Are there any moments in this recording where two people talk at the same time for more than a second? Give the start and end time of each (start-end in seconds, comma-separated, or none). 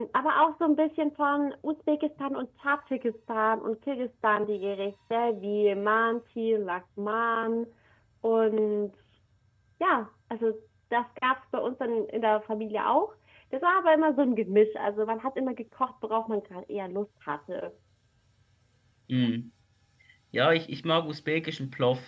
none